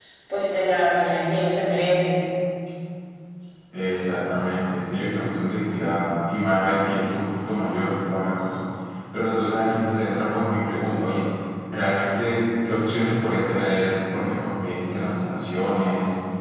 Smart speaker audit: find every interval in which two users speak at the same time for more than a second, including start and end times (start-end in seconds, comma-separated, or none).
none